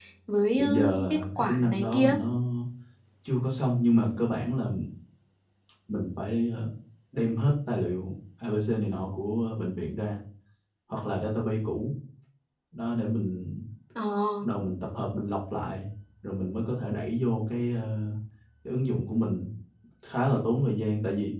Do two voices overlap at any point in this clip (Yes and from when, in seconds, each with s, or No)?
Yes, from 0.6 s